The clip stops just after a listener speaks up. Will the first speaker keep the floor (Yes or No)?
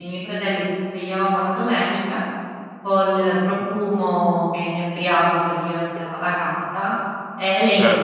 Yes